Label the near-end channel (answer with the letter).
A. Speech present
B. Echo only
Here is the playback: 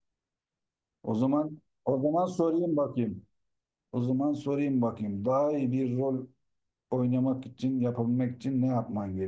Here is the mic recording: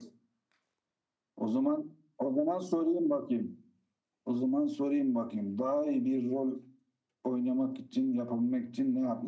B